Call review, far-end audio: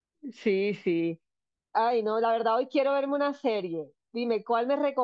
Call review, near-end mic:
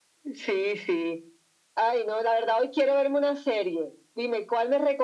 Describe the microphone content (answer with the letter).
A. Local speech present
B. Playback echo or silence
B